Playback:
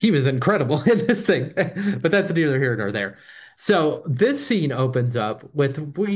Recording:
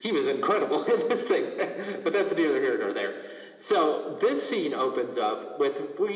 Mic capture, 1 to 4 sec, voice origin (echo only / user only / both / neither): echo only